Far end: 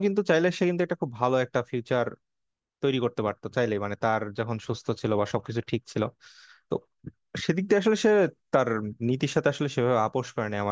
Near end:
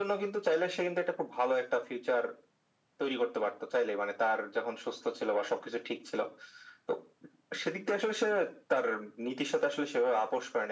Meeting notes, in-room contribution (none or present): none